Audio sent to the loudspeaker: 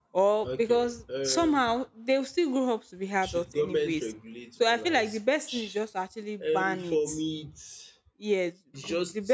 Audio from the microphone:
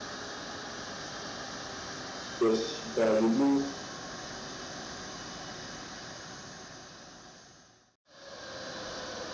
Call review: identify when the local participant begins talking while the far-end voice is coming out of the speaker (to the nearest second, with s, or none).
2 s